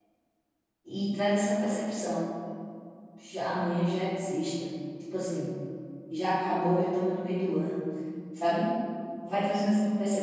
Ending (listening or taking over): listening